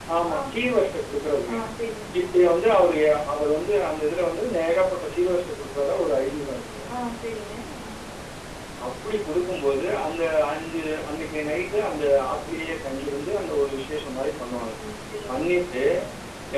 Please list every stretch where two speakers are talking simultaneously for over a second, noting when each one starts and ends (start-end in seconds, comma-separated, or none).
none